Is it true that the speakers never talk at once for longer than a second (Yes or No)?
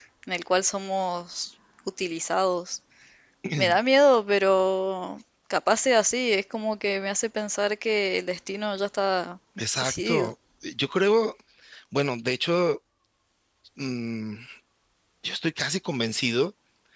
Yes